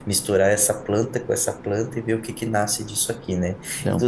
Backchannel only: Yes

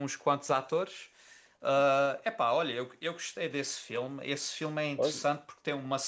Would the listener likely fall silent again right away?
Yes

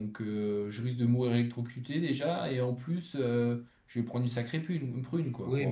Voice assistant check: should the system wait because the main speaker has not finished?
No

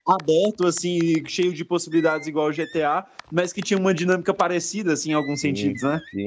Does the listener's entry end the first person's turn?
Yes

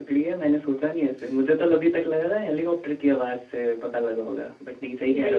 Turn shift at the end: Yes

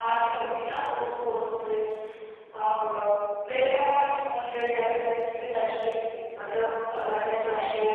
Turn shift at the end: No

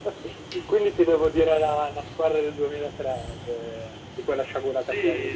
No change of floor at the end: No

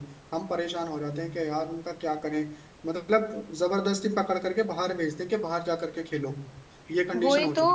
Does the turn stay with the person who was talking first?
No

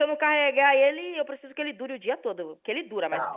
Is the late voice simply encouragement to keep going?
No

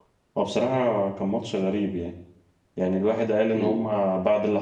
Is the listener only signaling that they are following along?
Yes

